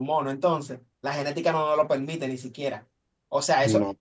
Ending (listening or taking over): listening